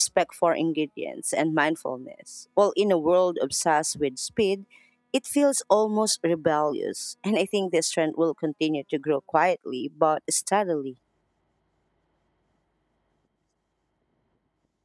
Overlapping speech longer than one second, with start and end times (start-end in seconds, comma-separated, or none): none